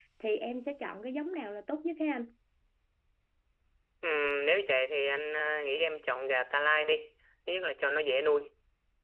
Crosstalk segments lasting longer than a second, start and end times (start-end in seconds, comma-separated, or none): none